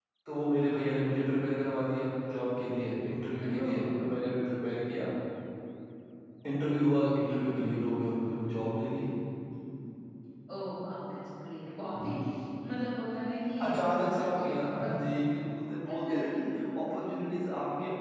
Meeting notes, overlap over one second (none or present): present